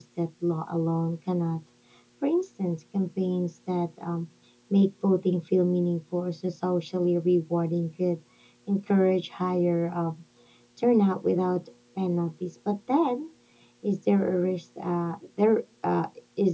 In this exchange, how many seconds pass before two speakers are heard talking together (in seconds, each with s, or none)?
none